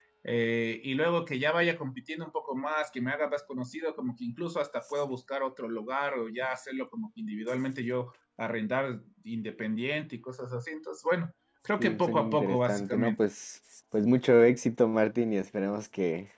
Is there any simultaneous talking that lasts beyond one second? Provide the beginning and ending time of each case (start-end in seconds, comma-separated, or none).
11.8-13.2